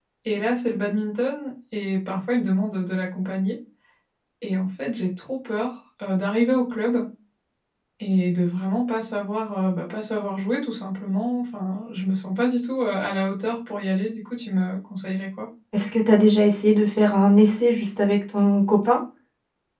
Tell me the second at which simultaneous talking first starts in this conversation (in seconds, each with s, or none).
none